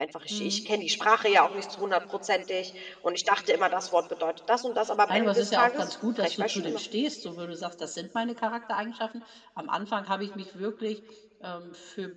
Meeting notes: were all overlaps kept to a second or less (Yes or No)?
No